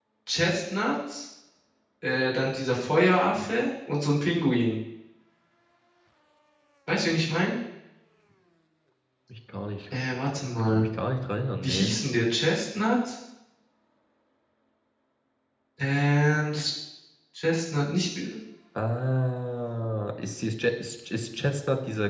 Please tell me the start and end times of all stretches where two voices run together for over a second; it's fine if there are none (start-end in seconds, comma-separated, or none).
none